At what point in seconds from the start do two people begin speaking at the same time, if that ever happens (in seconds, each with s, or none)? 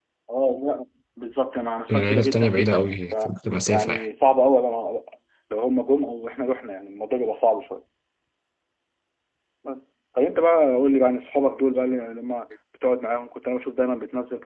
1.9 s